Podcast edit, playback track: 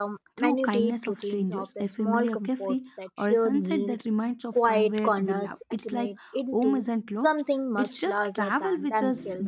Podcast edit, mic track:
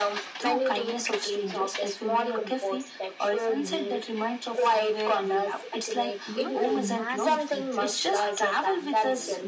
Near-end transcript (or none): even the imagined future.